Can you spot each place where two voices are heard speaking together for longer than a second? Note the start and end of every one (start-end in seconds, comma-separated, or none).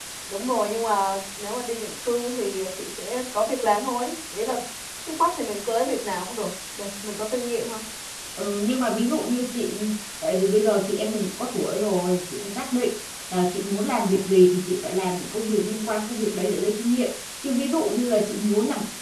none